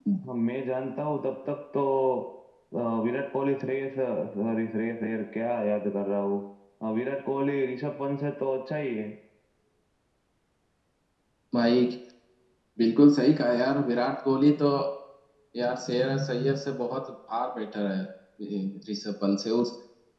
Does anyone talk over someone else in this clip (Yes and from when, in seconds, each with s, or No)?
No